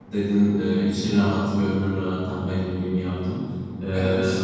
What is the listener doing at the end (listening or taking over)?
listening